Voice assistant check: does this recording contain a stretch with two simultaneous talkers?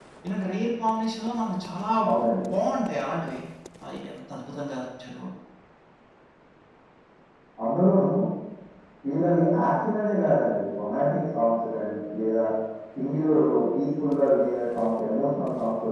No

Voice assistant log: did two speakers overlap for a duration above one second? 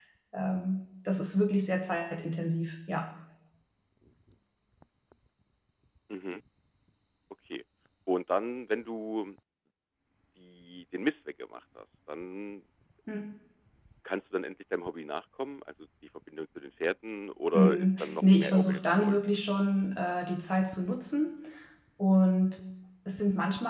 Yes, from 17.5 s

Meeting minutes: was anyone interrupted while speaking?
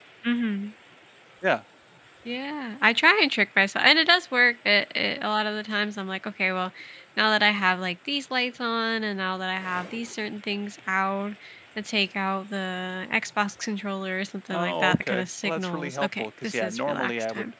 Yes, from 14.5 s

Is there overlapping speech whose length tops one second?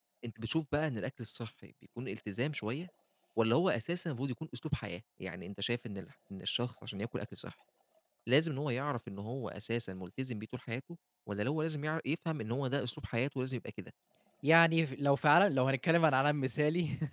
No

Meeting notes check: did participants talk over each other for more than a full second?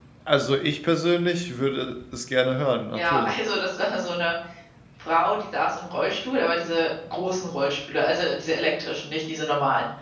No

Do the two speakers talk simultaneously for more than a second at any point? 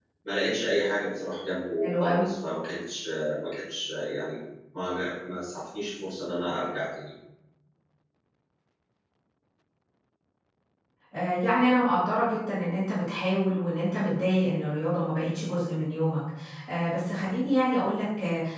No

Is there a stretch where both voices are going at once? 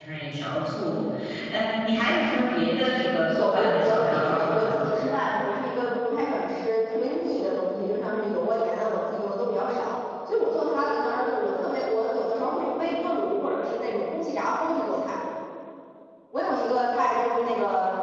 Yes, from 3.2 s

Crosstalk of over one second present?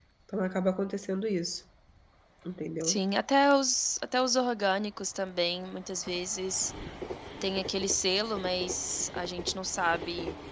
No

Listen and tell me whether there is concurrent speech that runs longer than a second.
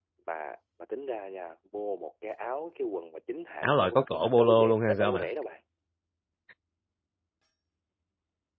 Yes, from 3.6 s

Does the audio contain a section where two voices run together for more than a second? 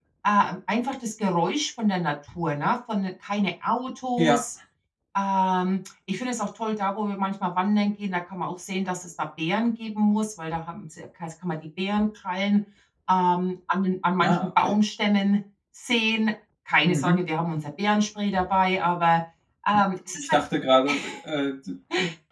No

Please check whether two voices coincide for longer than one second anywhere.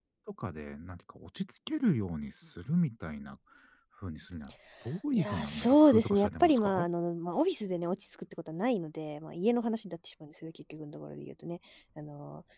Yes, from 5.1 s

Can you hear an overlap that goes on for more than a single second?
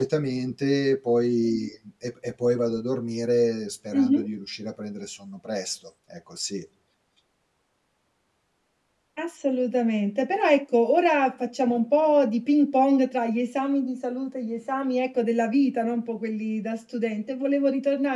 No

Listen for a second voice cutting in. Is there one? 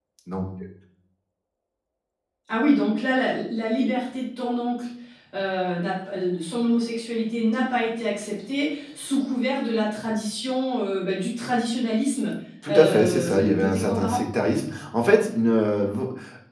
Yes, from 12.6 s

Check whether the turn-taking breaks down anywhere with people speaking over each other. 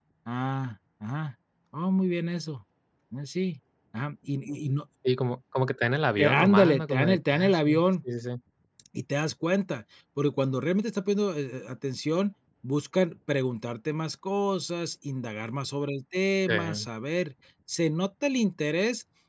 Yes, from 6.2 s

